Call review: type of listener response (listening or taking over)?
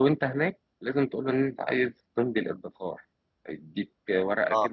listening